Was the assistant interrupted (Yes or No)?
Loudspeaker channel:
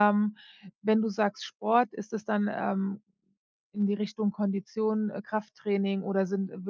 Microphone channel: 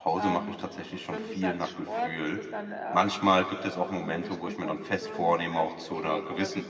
Yes